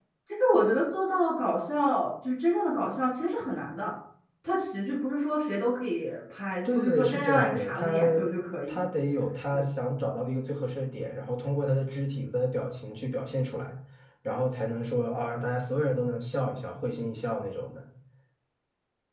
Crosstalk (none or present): present